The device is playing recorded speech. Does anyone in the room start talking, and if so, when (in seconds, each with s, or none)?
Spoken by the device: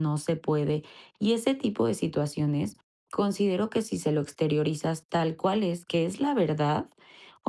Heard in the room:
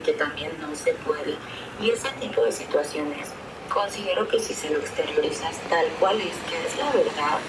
none